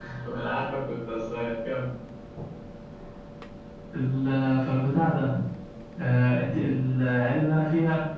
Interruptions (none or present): none